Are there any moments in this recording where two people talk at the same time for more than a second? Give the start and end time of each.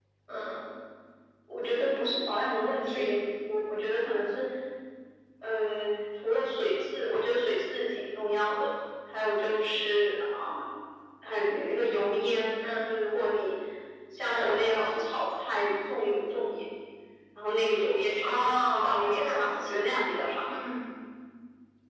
18.2-19.9

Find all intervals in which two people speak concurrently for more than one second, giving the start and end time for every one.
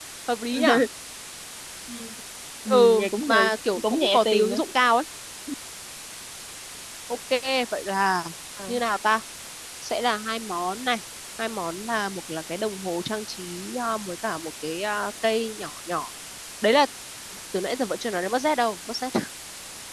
2.7-4.6

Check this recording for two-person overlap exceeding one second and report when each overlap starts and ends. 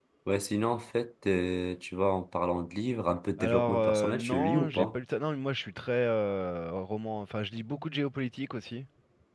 3.4-5.0

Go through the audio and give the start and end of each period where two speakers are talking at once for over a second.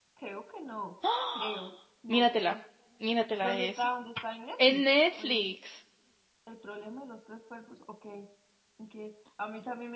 none

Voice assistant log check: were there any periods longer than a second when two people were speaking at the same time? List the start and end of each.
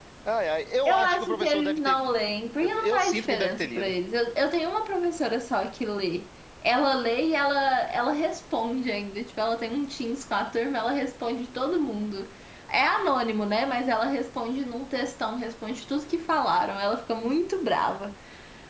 0.8-2.1, 2.6-3.9

